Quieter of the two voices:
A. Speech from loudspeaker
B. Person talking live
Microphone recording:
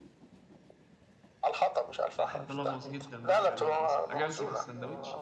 B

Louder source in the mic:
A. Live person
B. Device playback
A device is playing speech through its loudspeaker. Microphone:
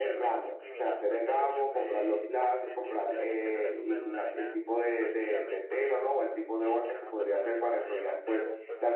A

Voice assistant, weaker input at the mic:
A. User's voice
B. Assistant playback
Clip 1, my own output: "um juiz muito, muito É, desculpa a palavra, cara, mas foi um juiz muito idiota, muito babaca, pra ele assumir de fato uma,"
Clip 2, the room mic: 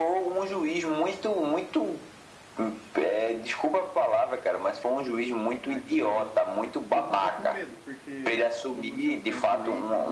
A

